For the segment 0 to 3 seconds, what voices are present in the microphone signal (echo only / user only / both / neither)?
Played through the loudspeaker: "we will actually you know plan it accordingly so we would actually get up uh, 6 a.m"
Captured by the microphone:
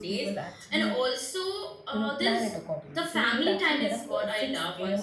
both